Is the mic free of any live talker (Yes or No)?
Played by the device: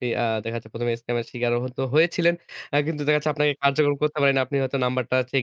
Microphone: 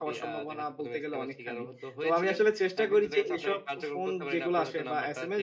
No